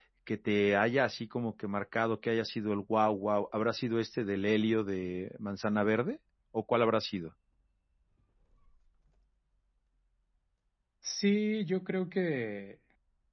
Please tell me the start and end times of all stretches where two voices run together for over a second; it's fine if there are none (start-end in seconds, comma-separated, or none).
none